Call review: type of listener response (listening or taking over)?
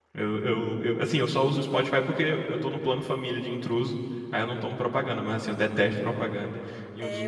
taking over